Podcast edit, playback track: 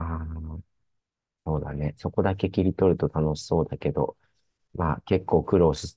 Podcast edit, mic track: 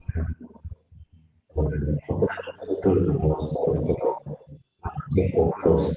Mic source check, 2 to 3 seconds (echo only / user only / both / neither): echo only